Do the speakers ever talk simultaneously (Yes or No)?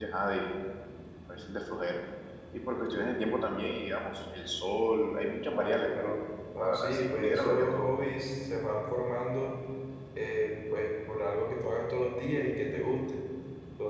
Yes